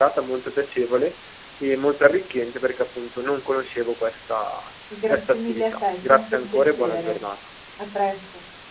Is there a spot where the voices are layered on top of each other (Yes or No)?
Yes